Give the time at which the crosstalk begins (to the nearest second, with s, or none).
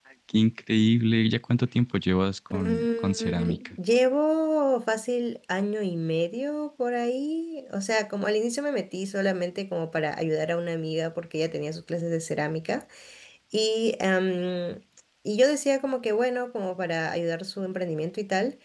3 s